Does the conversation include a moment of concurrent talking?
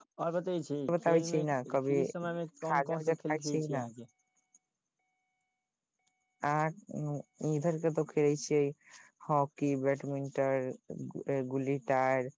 Yes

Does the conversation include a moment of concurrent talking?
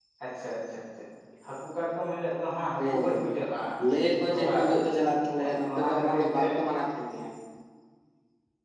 Yes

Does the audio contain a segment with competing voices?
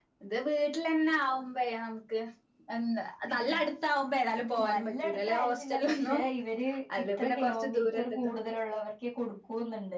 Yes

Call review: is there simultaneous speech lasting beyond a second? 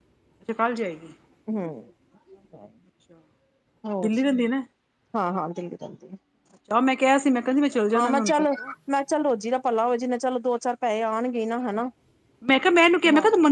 No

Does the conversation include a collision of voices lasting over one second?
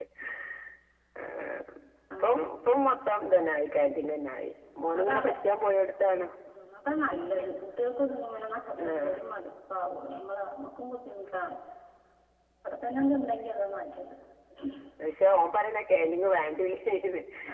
No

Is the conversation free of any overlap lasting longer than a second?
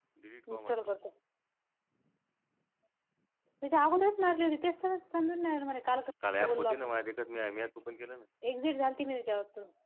Yes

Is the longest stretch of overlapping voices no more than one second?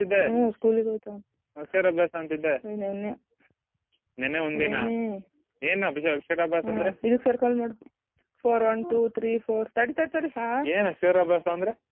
Yes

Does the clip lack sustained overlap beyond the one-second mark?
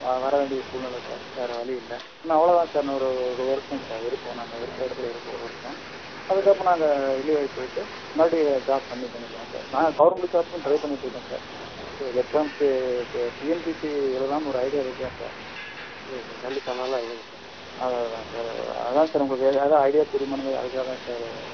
Yes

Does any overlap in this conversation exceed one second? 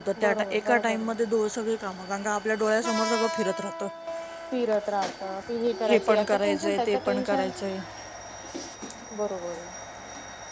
Yes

